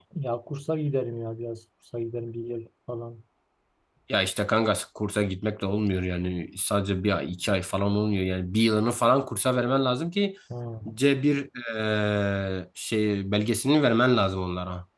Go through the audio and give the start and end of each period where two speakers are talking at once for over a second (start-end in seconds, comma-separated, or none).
none